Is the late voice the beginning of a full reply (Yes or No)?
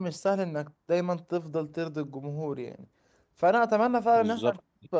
No